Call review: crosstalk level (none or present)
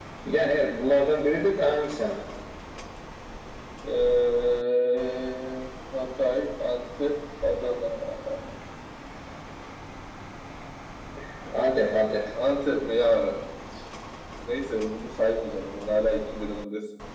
none